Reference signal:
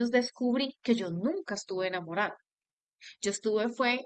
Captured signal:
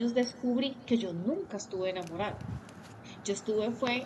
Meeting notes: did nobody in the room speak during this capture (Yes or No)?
Yes